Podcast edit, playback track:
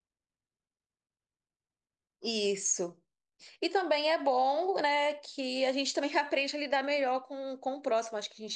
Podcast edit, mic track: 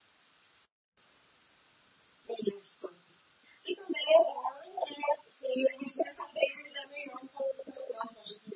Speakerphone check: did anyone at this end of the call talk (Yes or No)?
No